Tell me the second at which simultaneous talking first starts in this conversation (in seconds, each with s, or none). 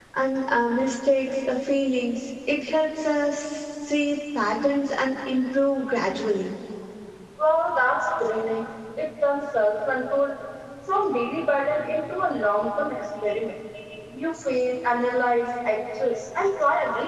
none